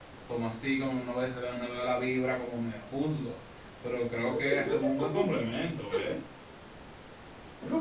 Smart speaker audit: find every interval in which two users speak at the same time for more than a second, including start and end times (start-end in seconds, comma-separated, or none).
4.2-6.2